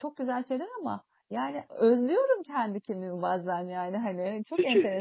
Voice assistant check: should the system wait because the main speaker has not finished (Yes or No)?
No